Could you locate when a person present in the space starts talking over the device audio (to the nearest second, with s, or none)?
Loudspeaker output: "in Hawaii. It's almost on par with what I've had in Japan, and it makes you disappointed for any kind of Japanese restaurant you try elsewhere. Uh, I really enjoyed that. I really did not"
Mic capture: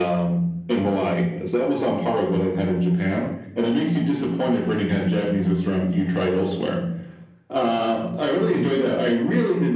none